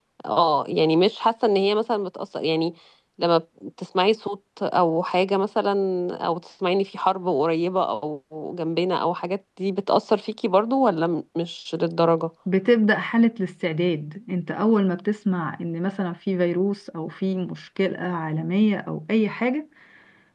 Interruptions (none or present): none